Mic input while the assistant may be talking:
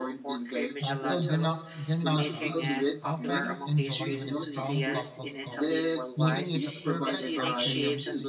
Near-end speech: present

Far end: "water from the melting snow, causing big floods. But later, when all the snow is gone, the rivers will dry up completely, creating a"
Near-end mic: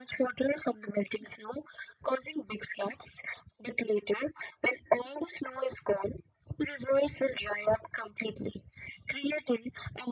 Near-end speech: none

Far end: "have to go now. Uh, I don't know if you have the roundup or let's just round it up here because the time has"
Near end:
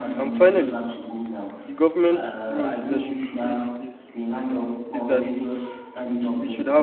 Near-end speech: present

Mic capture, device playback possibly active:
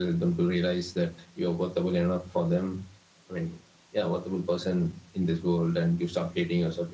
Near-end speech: none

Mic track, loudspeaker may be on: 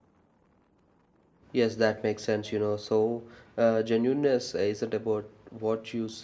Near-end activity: present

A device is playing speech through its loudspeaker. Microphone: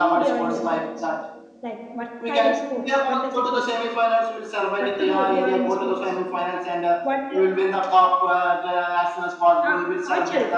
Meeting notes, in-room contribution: present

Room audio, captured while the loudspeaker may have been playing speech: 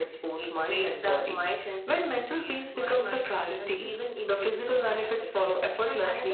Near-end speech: none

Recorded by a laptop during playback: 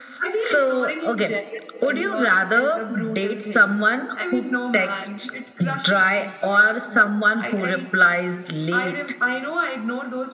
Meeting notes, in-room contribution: none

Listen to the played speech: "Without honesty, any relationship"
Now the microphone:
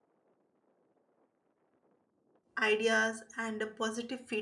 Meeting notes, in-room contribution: present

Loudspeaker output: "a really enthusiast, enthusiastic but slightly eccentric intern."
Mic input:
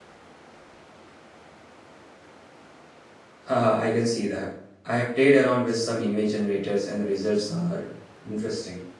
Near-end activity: present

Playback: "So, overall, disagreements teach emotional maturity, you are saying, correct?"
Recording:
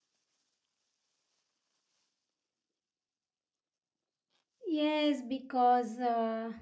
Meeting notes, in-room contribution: present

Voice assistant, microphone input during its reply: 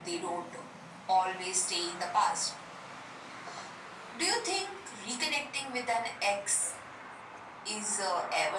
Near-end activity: none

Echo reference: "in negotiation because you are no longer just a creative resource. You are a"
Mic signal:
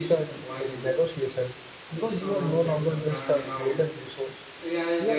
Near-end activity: present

